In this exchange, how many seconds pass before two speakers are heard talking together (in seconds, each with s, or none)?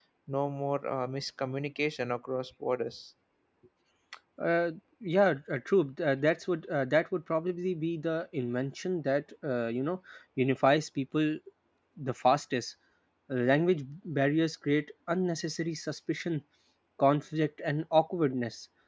none